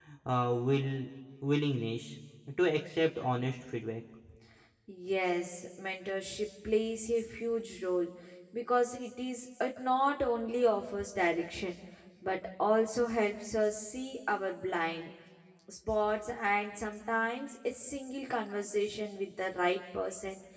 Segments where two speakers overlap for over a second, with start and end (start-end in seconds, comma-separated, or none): none